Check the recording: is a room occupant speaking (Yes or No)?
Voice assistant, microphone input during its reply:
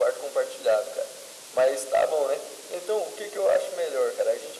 No